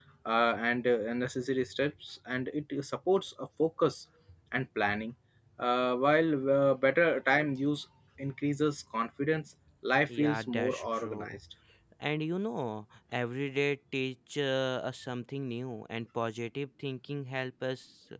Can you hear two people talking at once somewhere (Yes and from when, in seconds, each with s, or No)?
Yes, from 10.1 s